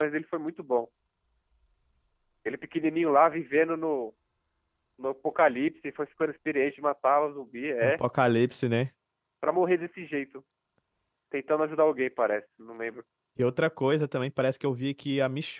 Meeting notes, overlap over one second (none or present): none